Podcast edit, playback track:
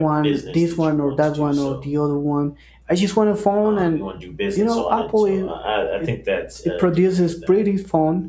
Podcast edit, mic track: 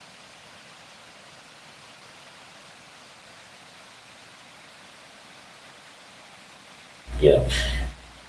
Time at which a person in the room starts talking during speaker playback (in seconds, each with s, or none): 7.2 s